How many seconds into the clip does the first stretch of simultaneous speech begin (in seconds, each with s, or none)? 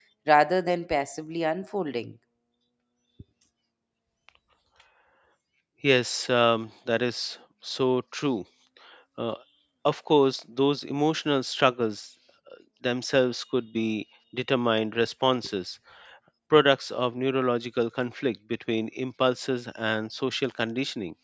none